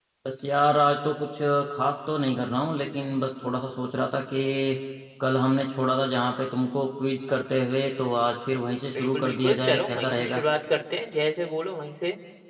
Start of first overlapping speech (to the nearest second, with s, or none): 9 s